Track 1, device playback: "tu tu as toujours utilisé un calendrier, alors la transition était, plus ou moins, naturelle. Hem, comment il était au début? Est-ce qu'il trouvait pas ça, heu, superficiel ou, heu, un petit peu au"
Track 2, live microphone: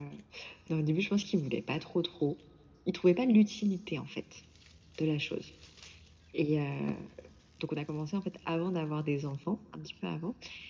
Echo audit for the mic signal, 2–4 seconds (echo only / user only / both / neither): user only